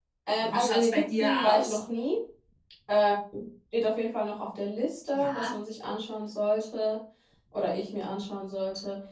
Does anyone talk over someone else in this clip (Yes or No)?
Yes